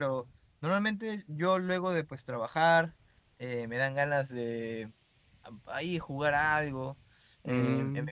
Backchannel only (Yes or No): Yes